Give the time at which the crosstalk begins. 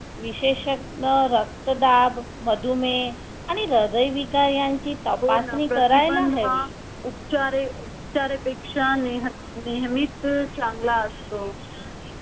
5 s

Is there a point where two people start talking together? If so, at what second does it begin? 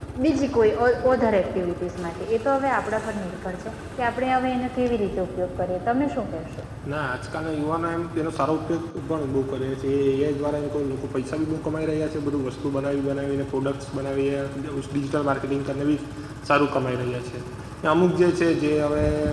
none

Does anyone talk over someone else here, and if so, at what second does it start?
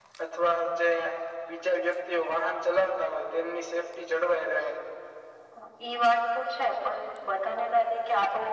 none

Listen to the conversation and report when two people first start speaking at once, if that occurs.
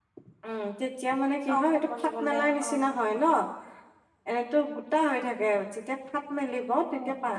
2 s

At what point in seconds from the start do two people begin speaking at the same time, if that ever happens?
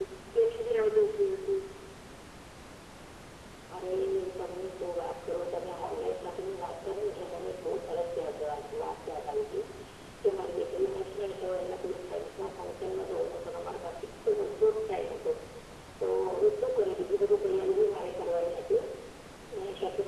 none

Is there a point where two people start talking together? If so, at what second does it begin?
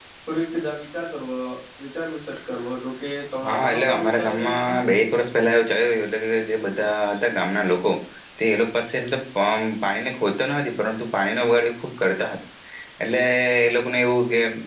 3 s

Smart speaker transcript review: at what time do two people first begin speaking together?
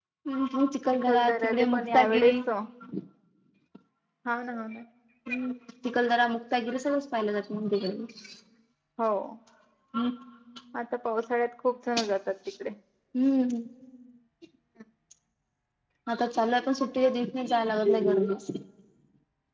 1 s

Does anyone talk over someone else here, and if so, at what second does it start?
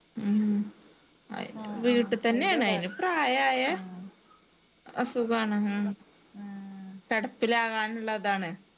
2 s

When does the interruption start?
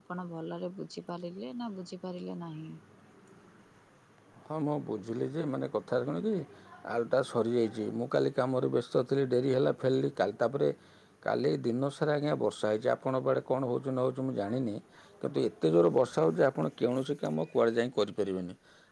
none

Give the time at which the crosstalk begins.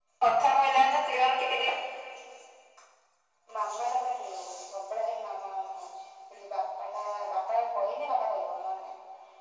none

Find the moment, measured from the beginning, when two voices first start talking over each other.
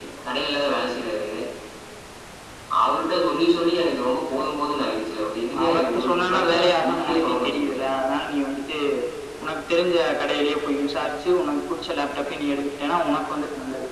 5 s

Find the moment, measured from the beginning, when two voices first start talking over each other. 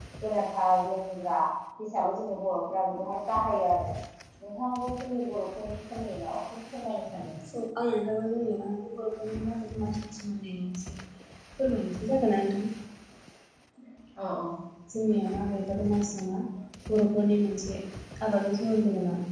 none

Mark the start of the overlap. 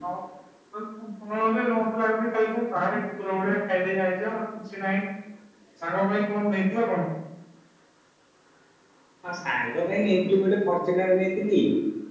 none

